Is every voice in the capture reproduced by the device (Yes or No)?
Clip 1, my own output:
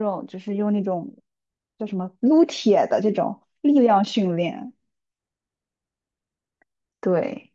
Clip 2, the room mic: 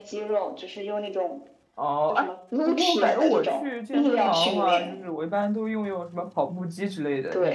No